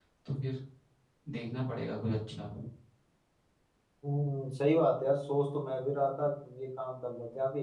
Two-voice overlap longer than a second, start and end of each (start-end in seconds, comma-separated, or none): none